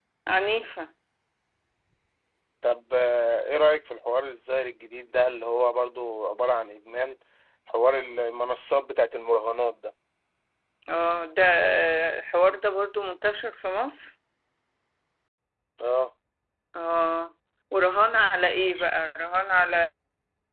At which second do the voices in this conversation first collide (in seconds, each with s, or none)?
none